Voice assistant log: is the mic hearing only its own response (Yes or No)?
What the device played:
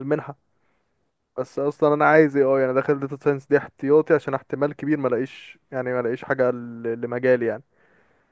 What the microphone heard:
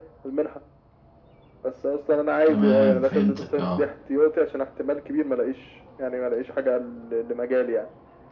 No